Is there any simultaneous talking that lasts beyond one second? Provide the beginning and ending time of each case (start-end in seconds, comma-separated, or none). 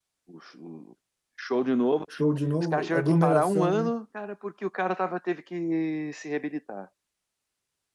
2.6-3.9